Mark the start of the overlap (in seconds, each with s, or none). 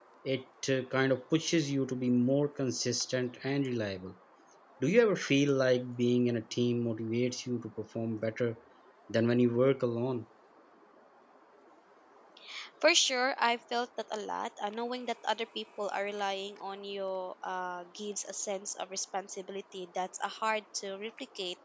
none